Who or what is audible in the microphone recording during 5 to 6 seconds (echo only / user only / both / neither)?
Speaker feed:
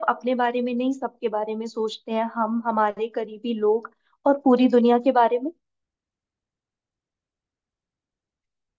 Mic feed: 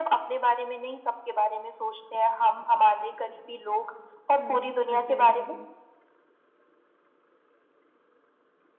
both